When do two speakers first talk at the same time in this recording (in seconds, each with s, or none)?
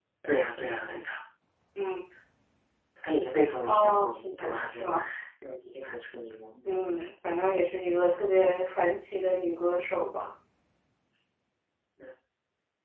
3.7 s